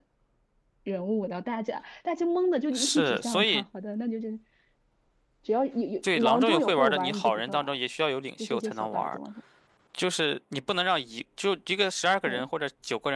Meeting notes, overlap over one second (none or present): present